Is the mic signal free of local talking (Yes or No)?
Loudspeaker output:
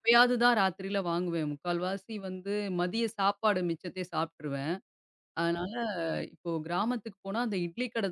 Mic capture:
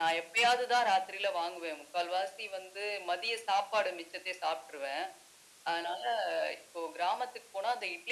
Yes